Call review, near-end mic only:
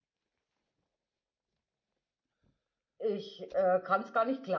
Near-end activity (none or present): present